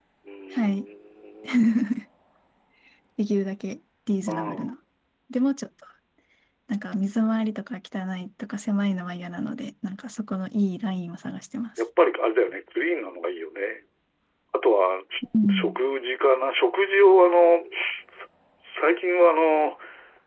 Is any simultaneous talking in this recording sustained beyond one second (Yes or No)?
No